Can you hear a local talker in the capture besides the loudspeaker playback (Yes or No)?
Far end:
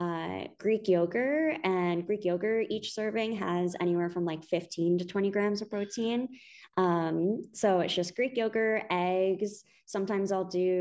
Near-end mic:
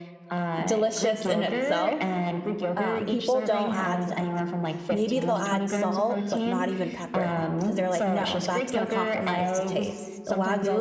Yes